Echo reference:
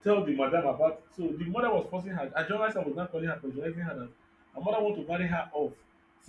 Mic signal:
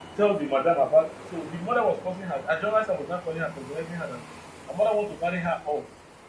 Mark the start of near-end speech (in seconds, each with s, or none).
none